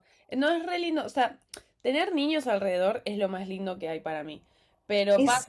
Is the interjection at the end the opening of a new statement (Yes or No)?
No